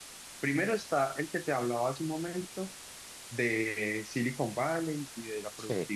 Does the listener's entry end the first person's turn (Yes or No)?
No